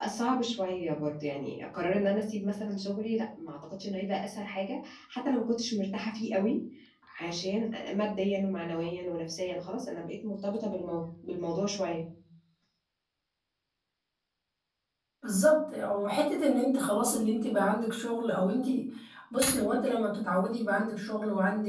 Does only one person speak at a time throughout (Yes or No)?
Yes